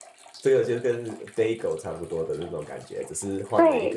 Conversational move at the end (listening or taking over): taking over